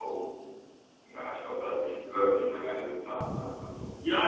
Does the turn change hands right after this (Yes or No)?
Yes